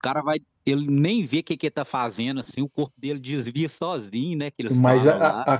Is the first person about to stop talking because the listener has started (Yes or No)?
Yes